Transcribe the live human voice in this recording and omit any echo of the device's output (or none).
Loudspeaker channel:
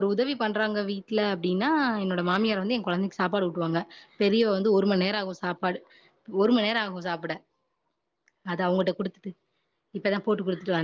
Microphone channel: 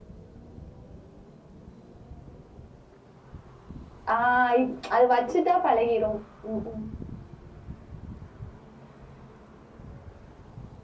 ஆ இப் அது வச்சுட்டா பழகிரும் ம் ம்